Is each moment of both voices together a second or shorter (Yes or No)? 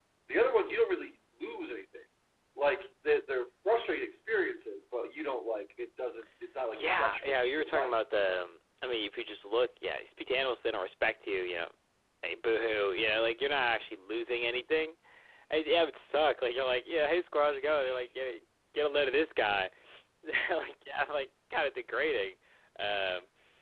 No